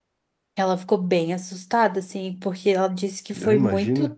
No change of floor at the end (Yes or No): Yes